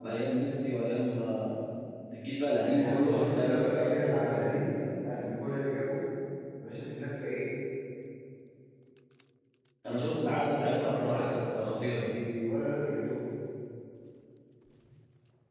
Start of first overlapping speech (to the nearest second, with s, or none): 3 s